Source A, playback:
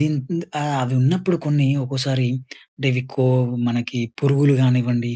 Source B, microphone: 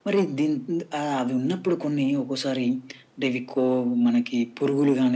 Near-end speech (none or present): none